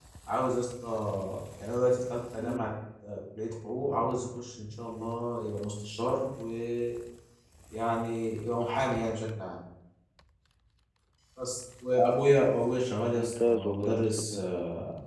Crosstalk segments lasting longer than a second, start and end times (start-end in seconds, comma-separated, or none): 13.2-14.4